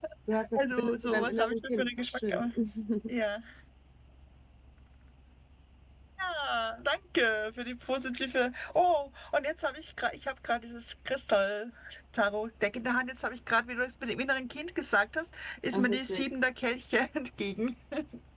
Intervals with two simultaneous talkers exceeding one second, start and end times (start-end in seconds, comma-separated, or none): 0.6-2.5